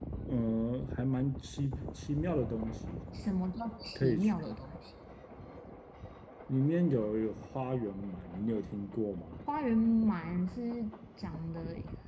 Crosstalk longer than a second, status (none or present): none